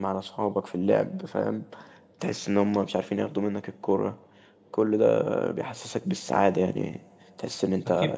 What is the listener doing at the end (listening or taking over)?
taking over